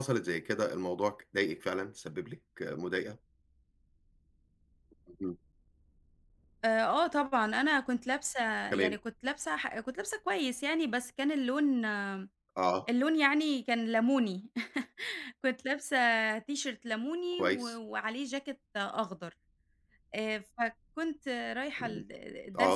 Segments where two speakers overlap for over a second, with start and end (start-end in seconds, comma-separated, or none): none